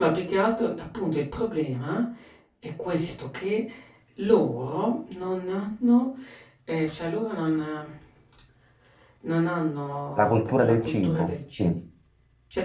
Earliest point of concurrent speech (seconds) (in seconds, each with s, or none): 10.2 s